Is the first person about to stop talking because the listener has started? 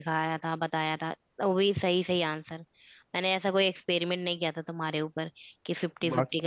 No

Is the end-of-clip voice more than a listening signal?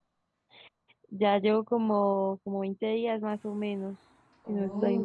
Yes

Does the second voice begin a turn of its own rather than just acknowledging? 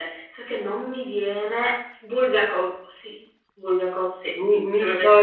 Yes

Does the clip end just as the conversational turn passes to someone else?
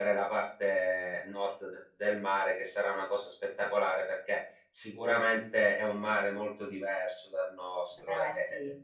No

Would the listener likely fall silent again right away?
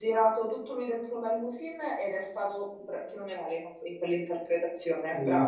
No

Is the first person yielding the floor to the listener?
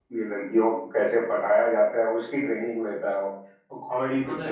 No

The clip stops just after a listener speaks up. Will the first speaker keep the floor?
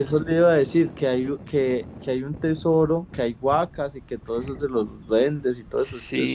No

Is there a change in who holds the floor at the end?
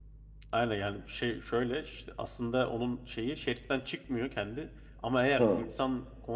No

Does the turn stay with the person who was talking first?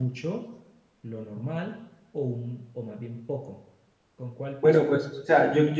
No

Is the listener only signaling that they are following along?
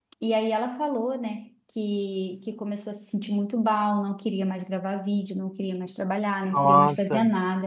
Yes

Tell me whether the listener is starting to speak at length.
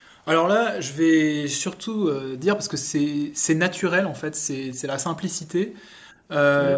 No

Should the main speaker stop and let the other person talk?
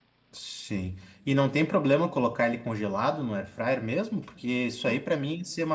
No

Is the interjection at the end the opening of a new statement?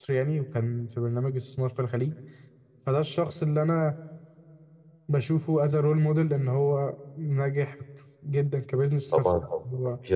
Yes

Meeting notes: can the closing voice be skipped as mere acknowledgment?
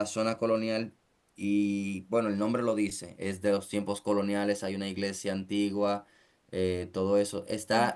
Yes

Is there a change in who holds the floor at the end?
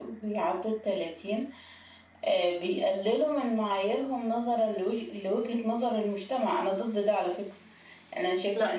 No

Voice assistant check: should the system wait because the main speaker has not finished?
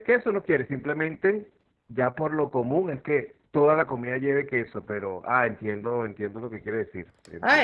No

